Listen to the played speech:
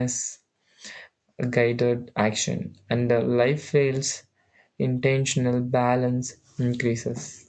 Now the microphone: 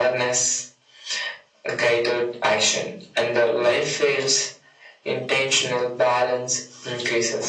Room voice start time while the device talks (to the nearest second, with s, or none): none